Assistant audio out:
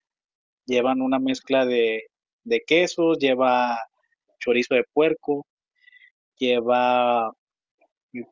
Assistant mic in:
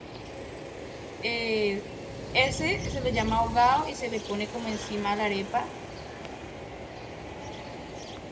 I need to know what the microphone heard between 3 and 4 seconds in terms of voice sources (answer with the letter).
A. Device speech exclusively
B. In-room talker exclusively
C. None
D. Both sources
B